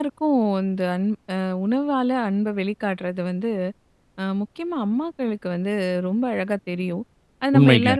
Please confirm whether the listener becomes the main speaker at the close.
No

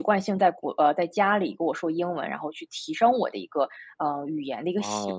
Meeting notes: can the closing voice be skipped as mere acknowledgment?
No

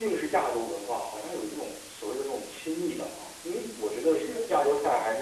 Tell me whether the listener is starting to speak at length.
No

